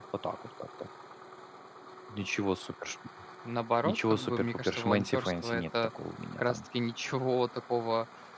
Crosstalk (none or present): present